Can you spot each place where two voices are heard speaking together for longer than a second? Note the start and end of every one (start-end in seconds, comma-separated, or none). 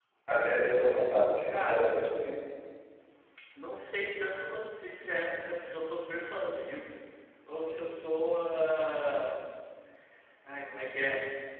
none